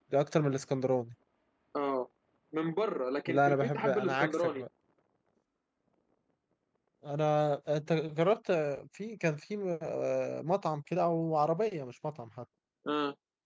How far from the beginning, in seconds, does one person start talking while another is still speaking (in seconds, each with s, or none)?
3.3 s